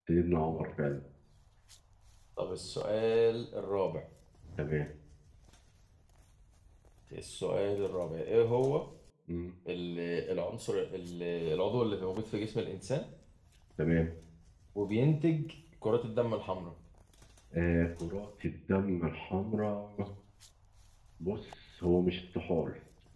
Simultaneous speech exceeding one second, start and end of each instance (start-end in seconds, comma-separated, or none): none